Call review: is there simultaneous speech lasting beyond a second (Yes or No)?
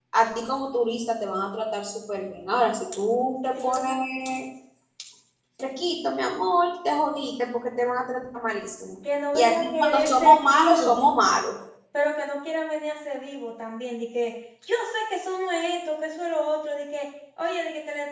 Yes